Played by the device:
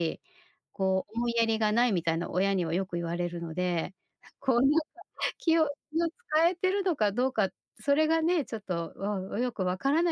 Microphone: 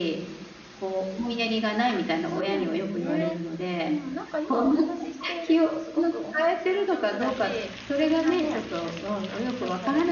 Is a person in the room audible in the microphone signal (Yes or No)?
Yes